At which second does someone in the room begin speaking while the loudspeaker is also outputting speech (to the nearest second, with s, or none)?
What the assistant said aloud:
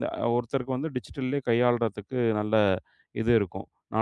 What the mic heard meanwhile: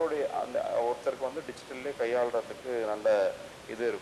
none